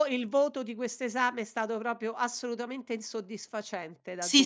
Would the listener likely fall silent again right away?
No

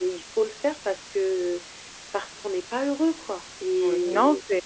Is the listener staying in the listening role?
No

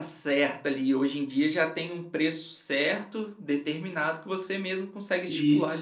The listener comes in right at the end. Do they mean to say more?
Yes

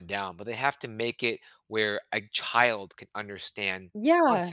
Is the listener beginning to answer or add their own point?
Yes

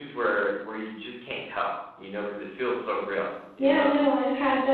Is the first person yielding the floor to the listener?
Yes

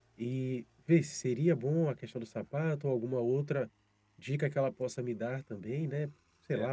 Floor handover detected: Yes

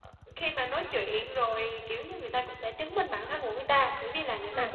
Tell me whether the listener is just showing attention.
Yes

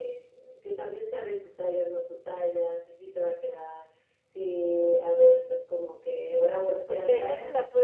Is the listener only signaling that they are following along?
No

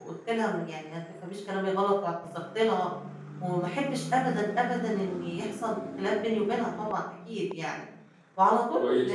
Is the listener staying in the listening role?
No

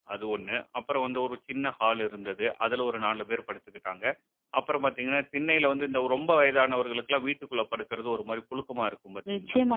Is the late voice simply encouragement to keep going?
No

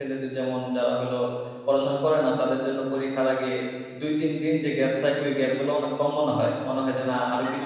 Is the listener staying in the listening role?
No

